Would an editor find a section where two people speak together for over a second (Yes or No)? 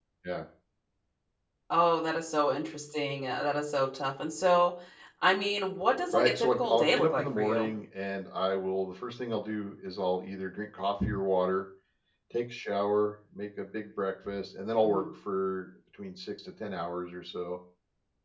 Yes